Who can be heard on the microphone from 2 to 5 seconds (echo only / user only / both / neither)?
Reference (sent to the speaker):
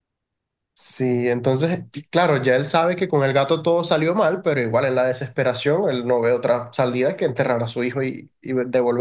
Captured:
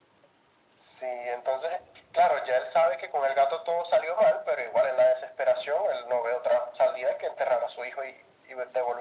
echo only